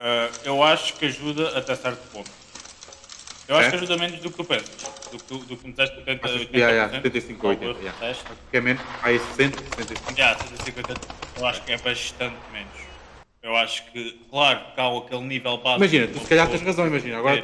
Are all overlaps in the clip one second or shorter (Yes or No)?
No